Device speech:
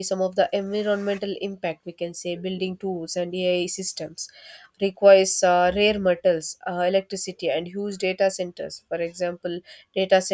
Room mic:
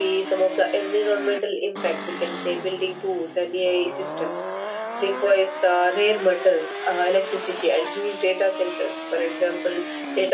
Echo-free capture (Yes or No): No